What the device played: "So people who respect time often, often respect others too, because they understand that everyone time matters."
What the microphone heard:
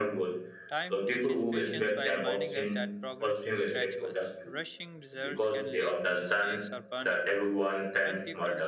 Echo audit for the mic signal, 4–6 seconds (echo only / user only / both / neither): both